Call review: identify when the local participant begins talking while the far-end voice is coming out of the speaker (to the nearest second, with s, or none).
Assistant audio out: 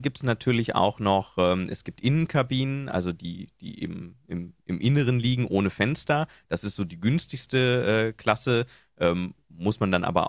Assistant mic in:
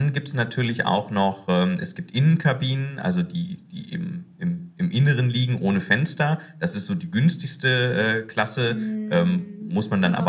9 s